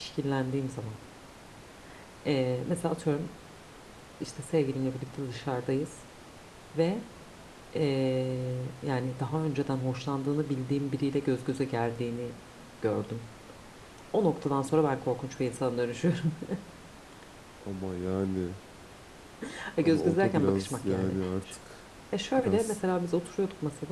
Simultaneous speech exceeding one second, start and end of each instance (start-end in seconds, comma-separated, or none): 19.8-21.2